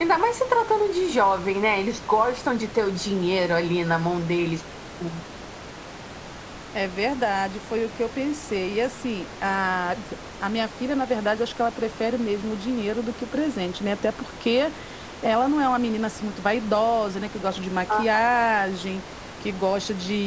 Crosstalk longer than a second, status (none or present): none